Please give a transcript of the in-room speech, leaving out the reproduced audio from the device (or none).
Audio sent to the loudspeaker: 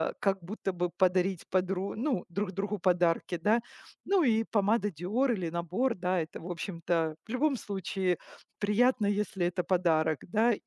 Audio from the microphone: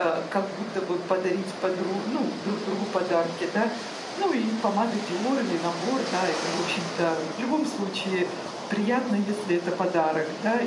none